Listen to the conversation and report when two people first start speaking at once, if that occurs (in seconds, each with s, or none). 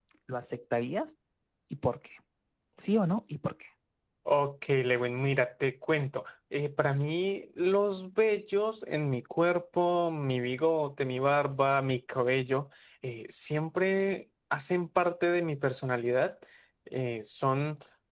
none